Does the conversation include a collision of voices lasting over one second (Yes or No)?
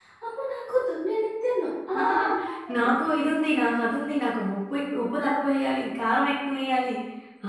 No